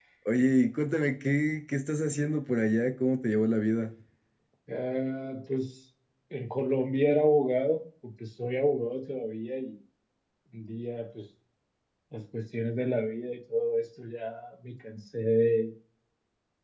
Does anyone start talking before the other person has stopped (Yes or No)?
No